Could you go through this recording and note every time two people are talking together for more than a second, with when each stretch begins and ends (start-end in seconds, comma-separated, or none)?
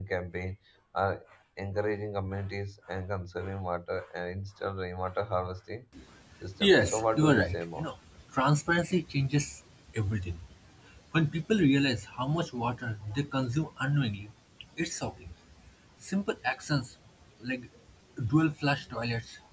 6.6-7.9